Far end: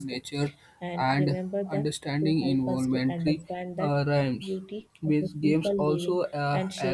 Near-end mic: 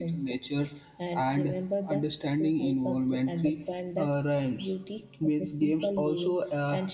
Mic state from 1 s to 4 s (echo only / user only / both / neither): echo only